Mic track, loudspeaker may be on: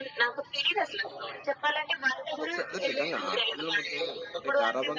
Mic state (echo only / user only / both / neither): both